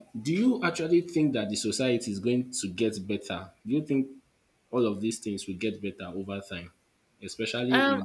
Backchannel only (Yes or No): No